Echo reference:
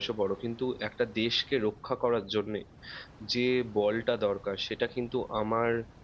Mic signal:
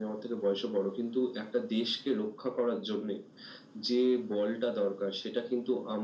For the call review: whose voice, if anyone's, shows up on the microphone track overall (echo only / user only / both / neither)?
echo only